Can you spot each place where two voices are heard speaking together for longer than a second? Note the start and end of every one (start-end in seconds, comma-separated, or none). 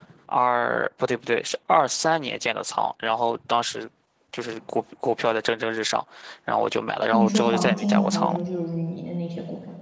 7.1-8.4